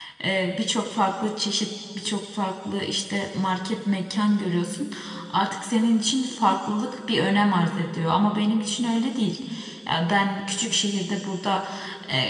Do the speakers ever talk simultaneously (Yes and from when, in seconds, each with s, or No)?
No